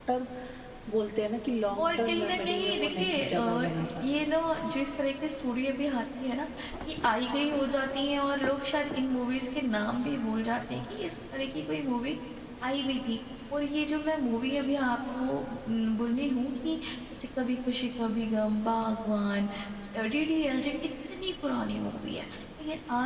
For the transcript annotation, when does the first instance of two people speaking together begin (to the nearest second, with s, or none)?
2 s